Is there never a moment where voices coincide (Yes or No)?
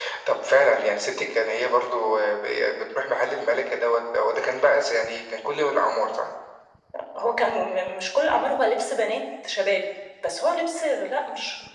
Yes